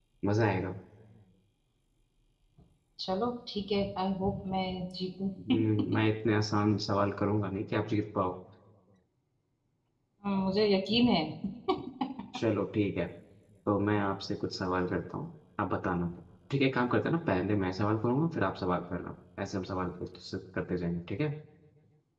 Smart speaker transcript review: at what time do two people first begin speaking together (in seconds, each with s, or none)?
none